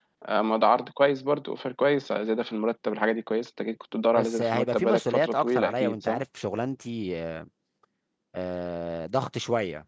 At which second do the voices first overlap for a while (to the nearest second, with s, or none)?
4 s